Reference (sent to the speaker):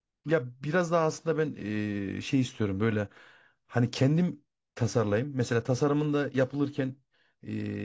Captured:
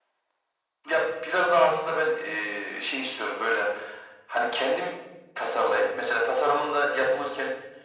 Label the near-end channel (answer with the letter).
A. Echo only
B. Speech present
A